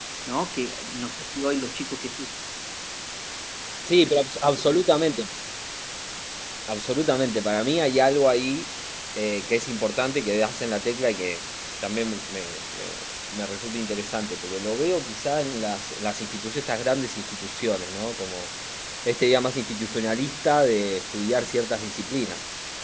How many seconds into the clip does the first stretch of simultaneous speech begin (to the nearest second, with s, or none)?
none